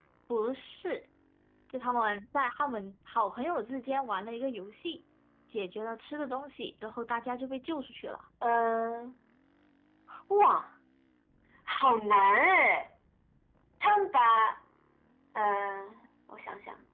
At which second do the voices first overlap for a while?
none

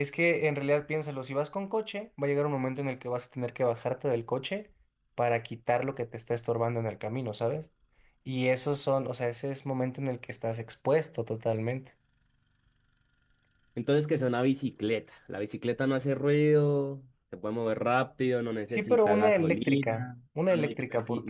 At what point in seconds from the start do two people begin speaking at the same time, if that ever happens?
18.7 s

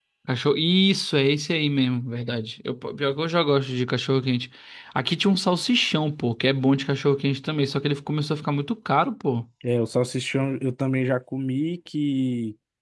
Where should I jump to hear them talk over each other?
none

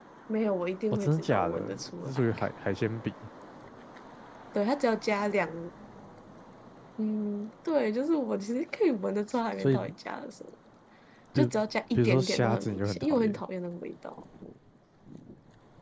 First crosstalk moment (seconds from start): 0.9 s

